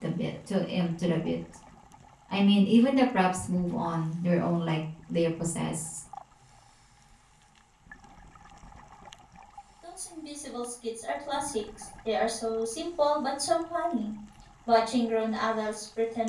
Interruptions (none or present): none